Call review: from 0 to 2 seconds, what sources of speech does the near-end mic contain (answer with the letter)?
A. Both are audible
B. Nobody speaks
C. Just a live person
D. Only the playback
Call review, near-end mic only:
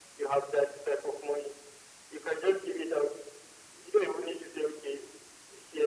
D